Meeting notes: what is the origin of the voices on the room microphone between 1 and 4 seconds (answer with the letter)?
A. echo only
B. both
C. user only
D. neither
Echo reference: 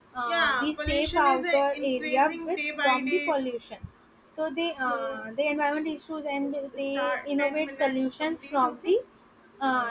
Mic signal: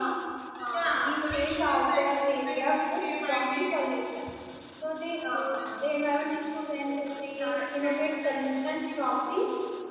A